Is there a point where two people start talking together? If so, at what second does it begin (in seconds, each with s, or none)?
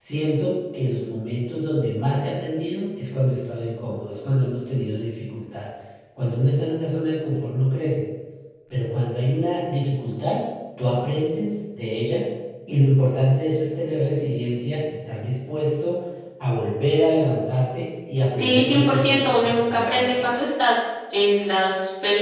18.4 s